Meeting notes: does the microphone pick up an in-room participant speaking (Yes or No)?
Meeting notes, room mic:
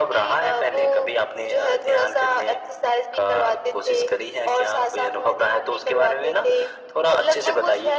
No